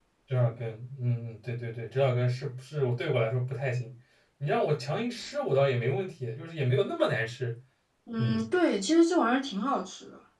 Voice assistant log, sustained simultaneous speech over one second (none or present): none